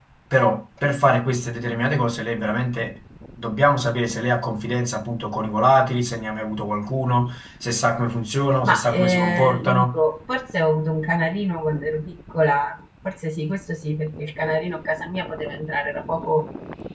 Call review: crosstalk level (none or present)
present